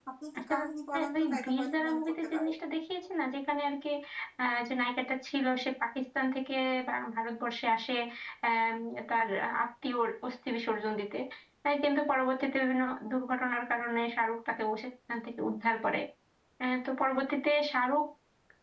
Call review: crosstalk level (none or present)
present